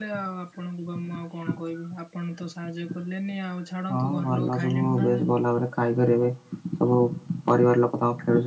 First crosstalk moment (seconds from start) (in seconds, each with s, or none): 3.9 s